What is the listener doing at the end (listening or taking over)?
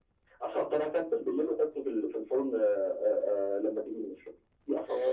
taking over